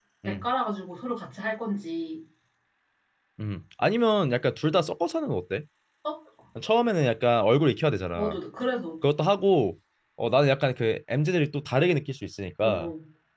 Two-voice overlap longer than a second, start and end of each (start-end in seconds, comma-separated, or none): none